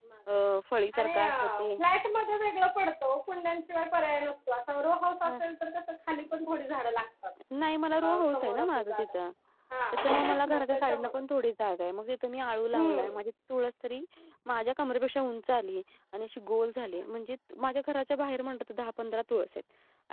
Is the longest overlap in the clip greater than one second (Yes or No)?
Yes